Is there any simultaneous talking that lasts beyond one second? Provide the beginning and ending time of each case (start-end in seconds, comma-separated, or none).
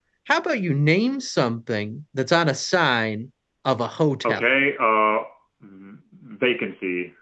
none